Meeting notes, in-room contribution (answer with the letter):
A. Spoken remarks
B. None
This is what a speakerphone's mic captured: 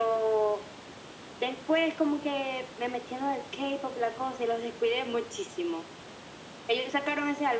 B